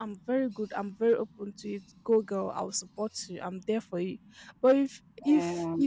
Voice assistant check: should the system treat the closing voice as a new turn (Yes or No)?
No